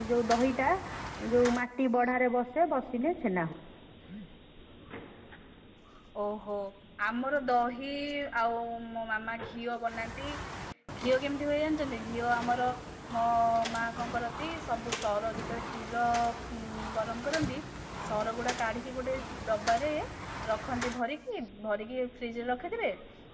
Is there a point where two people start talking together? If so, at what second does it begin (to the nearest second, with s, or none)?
none